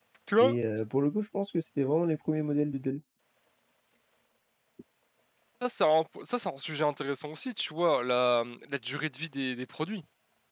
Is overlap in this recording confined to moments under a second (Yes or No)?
Yes